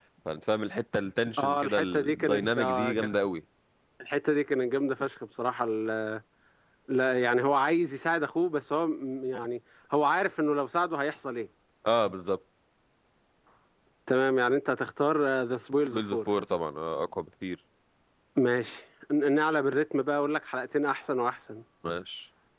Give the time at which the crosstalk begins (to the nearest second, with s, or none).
1 s